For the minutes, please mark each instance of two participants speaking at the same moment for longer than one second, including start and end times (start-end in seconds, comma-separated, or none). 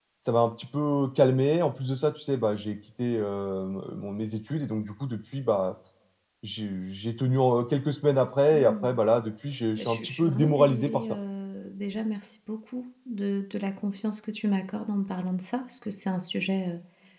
9.8-11.2